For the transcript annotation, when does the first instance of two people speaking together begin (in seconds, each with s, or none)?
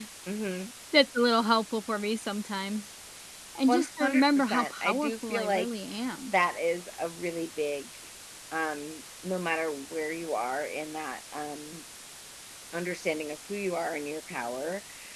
3.7 s